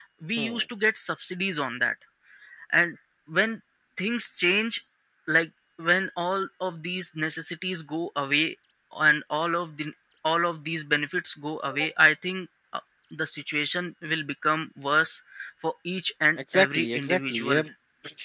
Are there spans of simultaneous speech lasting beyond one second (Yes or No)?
Yes